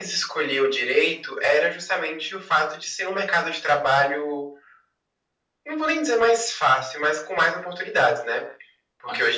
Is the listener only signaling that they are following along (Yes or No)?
Yes